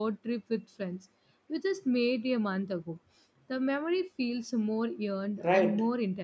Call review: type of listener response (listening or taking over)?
taking over